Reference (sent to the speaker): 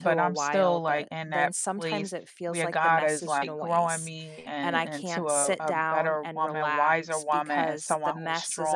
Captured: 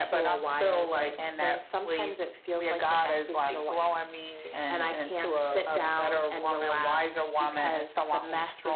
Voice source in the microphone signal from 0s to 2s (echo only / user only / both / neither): echo only